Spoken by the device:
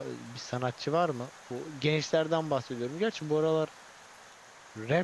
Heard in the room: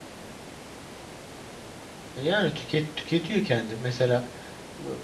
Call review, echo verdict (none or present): none